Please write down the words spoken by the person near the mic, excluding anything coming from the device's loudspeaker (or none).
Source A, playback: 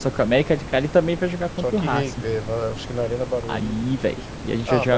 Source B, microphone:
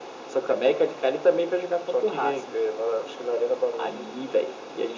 none